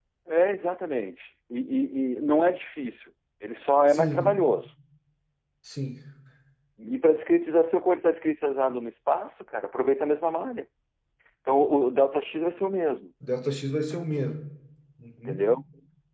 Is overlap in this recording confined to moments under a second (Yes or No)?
Yes